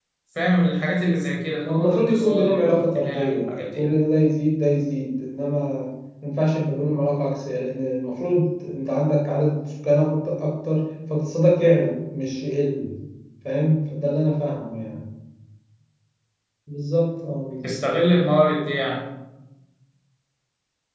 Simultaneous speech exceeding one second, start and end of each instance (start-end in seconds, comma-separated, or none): 1.7-3.8